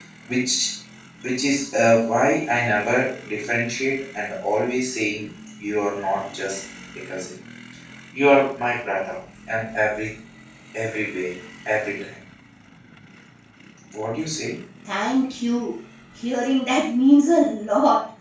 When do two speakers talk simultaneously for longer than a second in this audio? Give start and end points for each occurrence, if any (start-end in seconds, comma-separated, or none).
none